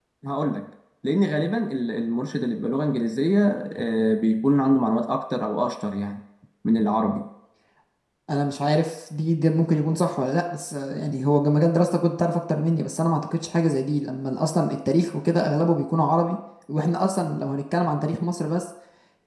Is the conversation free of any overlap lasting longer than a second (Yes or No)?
Yes